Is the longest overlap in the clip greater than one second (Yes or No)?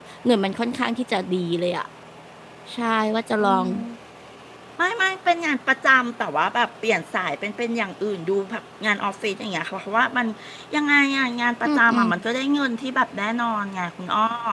No